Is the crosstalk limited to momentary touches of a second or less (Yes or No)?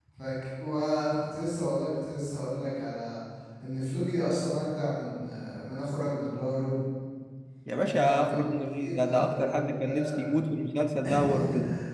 No